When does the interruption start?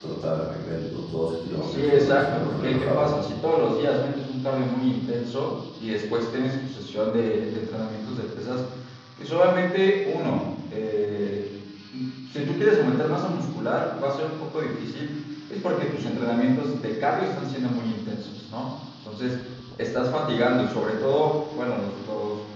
1.6 s

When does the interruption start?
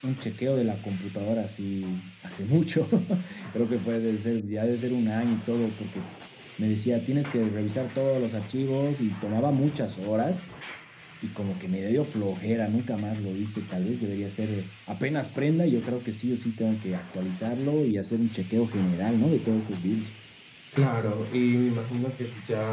none

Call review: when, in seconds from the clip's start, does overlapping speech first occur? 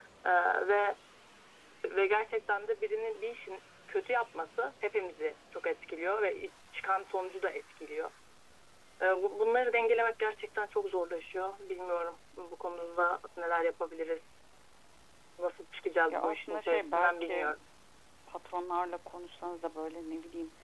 16.1 s

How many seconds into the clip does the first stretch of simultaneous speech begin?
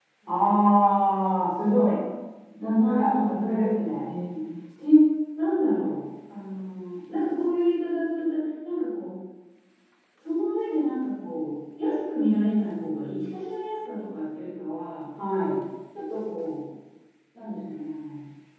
2.8 s

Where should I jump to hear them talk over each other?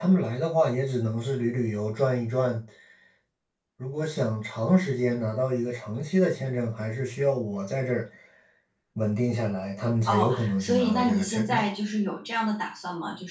10.1 s

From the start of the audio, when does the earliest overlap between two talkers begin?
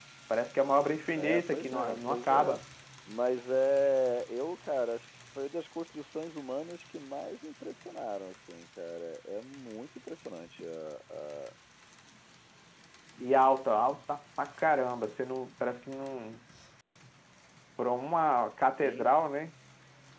1.2 s

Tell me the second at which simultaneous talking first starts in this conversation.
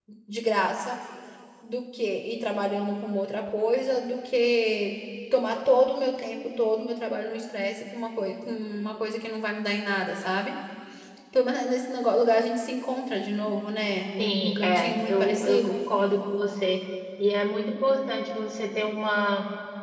14.2 s

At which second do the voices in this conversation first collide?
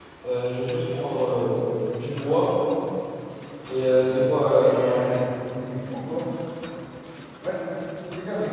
3.8 s

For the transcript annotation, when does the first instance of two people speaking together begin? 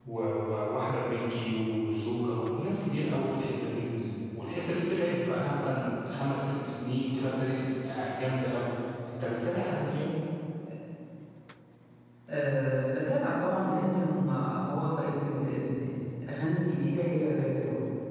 none

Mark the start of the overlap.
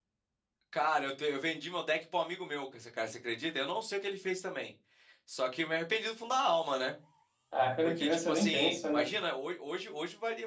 7.8 s

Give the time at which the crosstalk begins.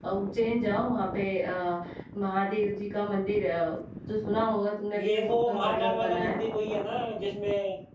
4.9 s

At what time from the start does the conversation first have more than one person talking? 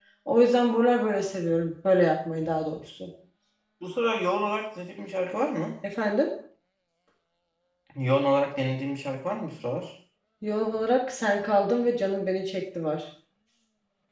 none

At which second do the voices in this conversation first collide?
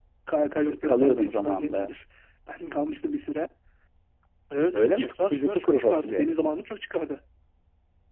0.7 s

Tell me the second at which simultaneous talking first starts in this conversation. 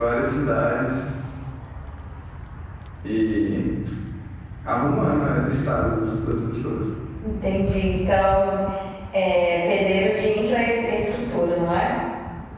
none

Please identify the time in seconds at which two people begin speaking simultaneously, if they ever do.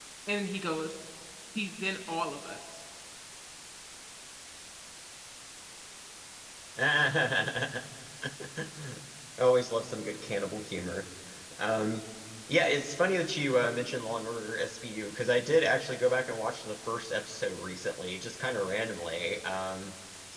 none

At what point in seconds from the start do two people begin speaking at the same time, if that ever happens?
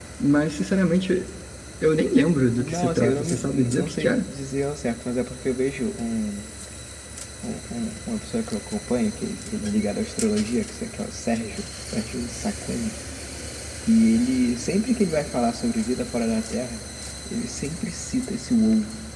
2.6 s

